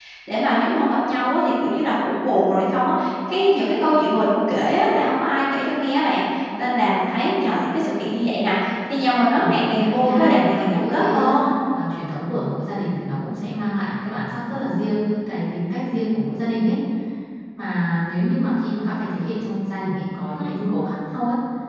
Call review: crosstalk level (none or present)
present